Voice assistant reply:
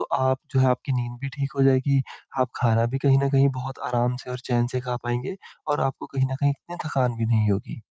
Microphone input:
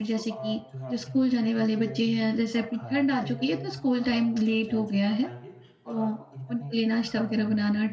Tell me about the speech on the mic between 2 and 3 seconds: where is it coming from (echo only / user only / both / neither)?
both